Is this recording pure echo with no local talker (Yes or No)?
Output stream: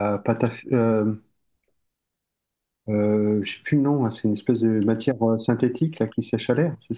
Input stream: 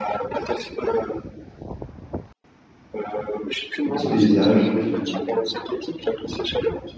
No